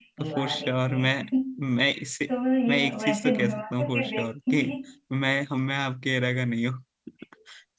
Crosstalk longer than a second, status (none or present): present